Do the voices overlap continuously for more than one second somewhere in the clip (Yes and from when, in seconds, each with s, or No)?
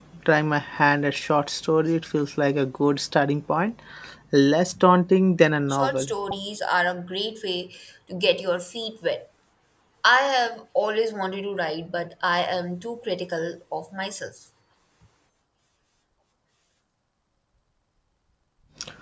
No